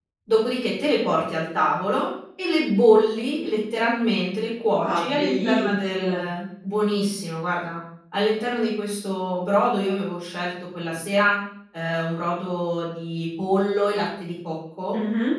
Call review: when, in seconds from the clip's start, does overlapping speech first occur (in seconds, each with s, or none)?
4.7 s